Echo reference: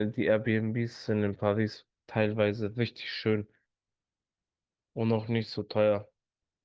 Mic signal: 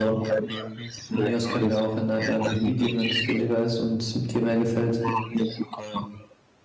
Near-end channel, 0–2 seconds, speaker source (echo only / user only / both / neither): both